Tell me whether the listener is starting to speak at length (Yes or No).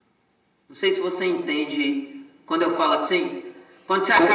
Yes